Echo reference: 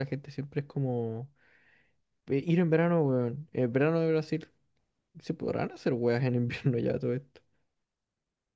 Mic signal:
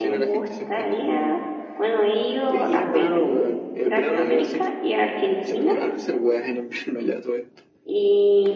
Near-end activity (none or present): present